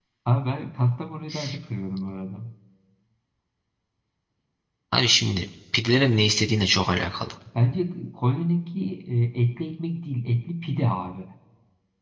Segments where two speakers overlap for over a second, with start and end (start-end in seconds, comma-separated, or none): none